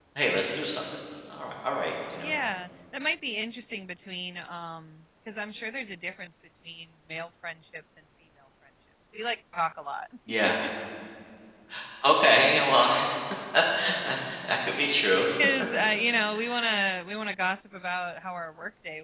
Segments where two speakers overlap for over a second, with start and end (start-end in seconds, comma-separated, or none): none